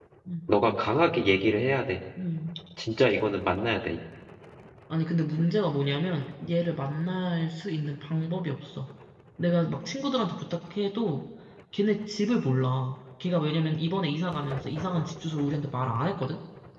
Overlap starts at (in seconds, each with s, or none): none